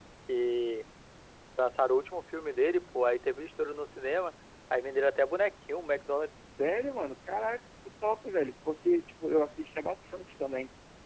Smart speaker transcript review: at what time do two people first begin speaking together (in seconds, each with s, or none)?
none